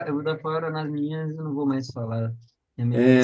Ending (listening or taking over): taking over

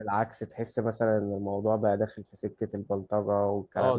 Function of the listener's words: taking over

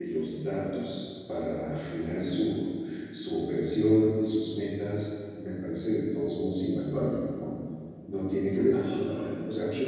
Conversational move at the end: taking over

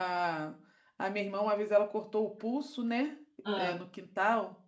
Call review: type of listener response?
listening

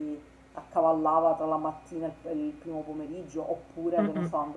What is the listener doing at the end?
listening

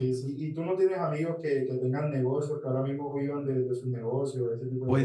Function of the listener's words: taking over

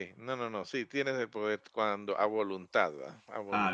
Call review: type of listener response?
taking over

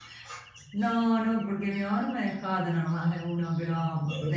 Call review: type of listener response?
listening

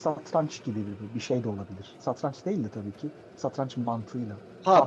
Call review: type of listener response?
taking over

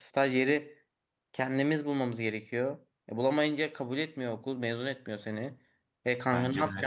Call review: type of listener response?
listening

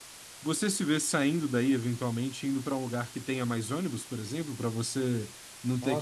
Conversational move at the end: taking over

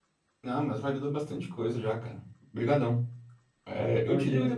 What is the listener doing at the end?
listening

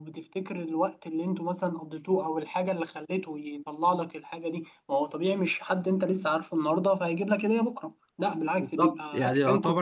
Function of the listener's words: taking over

